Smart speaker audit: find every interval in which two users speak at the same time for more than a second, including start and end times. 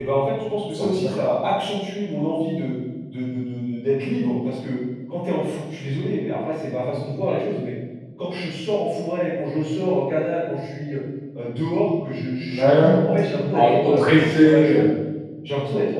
13.5-14.9

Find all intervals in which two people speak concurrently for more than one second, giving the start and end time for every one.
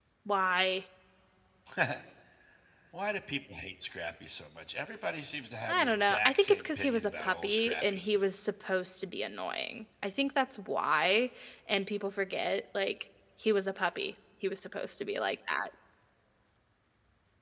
5.7-8.0

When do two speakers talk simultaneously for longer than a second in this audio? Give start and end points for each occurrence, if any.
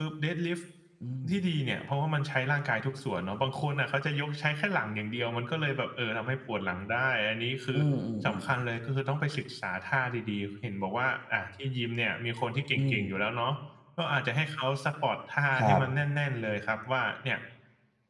none

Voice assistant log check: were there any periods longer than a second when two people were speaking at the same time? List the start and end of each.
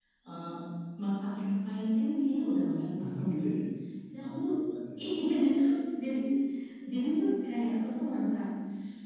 none

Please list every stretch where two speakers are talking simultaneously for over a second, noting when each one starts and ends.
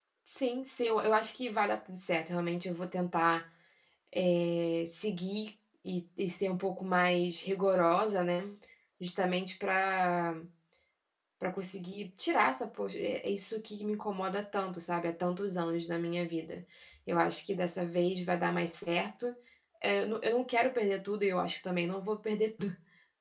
none

